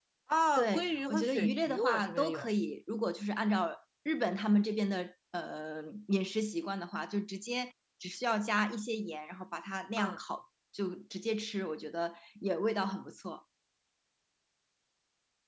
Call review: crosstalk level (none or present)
present